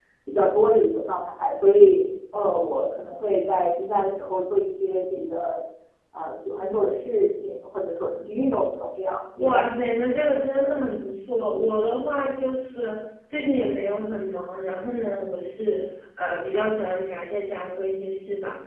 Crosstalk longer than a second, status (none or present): none